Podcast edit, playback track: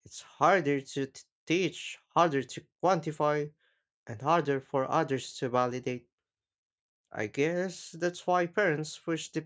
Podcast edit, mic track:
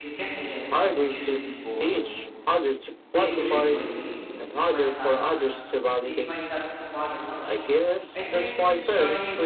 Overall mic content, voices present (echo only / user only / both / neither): both